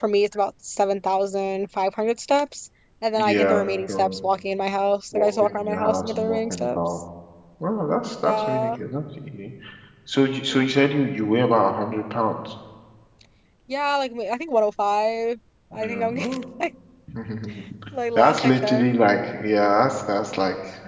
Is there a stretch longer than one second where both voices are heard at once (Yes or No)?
Yes